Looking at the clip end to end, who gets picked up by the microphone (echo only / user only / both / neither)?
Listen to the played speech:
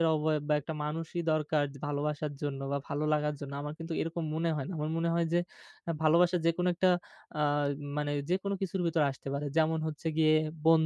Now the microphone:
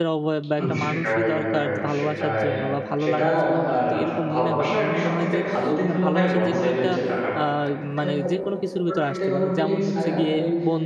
both